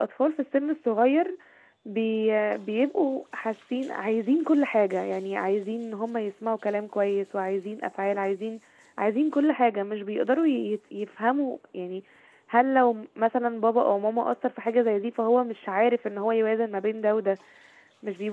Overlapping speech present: No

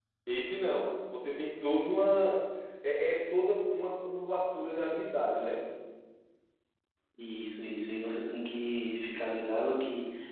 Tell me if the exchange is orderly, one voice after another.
Yes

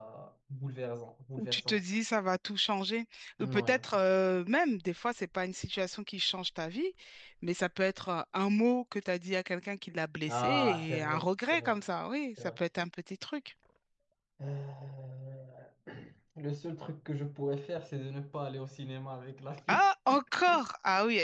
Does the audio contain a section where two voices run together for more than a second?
Yes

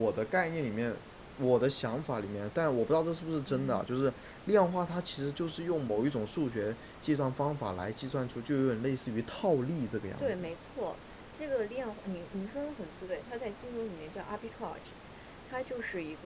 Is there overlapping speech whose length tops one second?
No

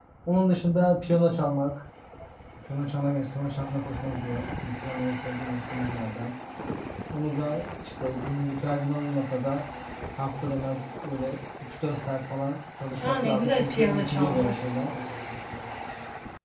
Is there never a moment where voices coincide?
No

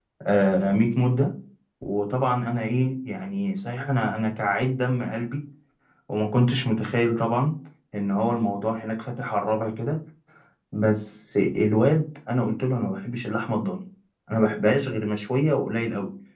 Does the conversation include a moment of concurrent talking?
No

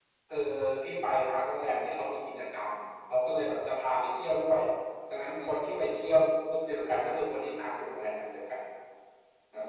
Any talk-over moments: No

